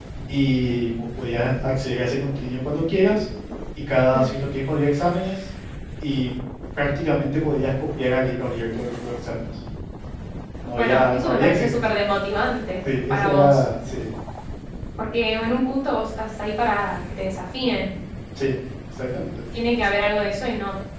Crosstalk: present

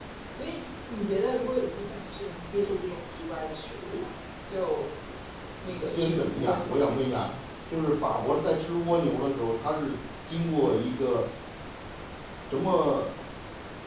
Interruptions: present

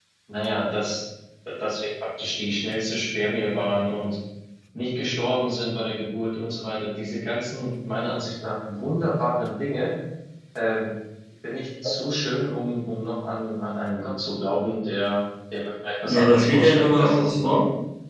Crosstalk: present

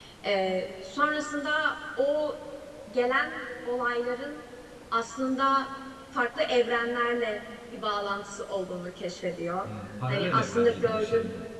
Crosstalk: present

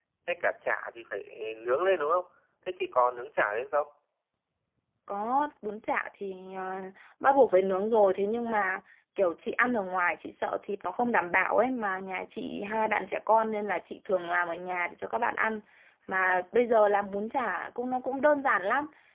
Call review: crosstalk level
none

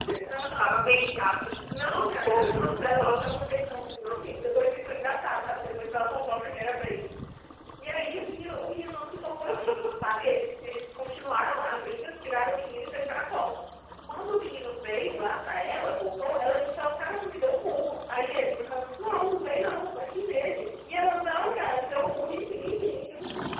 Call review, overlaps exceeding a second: present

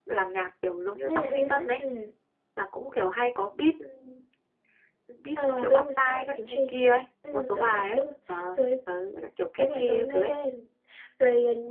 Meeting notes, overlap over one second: present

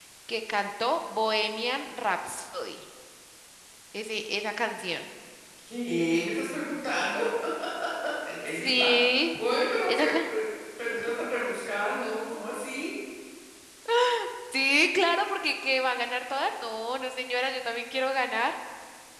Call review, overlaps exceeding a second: none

